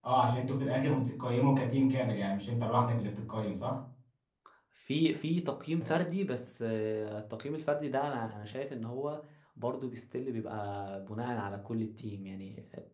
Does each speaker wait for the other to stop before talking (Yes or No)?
Yes